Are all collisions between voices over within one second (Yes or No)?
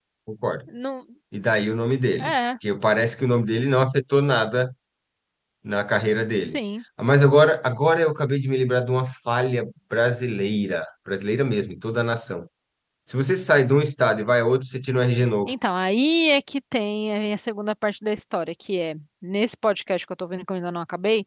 Yes